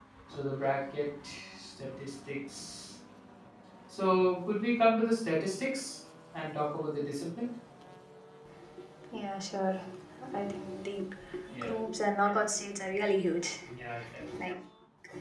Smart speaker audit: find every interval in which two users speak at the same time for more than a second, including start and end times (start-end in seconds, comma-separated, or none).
none